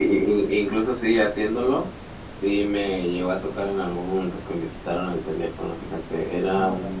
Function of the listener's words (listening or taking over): listening